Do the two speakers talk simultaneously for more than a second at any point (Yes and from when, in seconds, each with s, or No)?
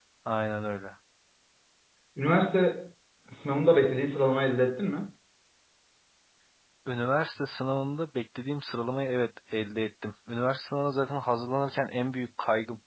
No